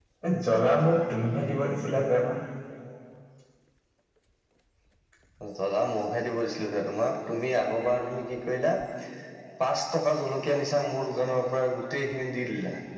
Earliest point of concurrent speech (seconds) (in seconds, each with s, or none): none